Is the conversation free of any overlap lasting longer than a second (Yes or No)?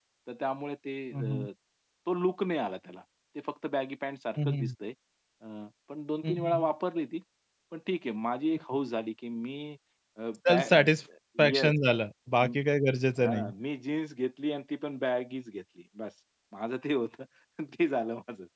Yes